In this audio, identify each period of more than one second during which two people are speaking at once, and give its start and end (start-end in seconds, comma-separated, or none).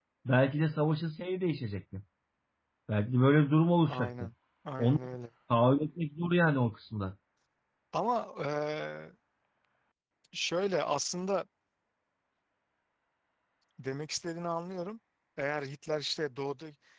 none